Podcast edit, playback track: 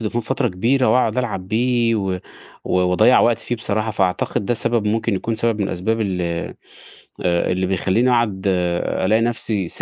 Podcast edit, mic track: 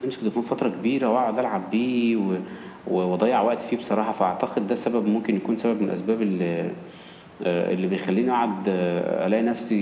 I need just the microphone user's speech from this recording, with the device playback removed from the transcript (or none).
none